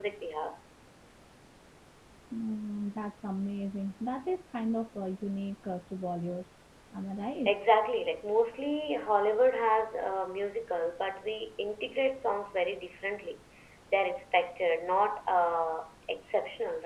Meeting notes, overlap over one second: none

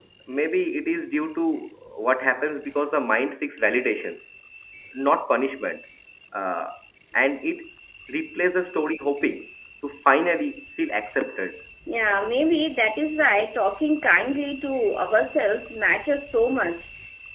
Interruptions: none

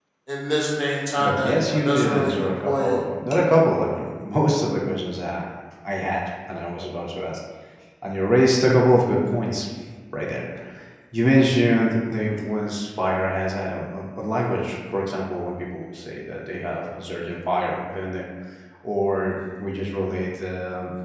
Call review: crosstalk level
present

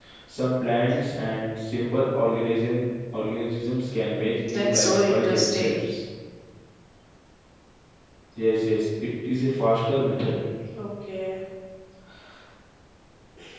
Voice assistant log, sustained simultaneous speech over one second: present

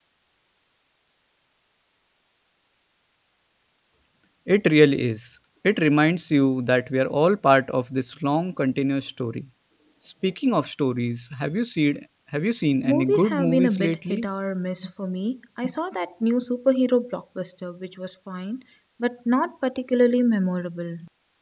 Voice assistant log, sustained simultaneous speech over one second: present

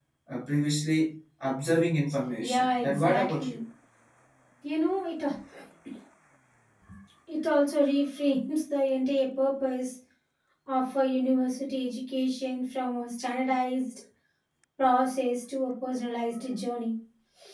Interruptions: present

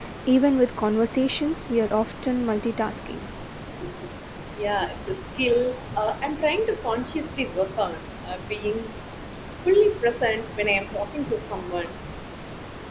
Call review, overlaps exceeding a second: none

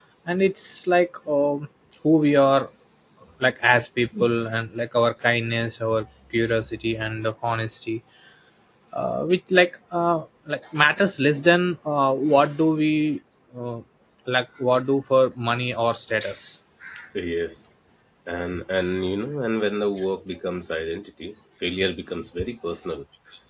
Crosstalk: none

